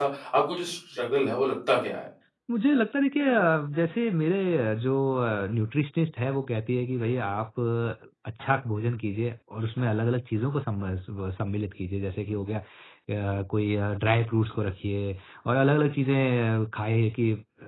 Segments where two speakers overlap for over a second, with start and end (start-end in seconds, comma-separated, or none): none